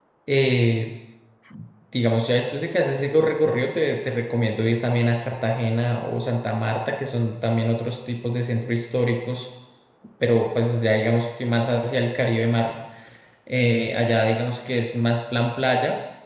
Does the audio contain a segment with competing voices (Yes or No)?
No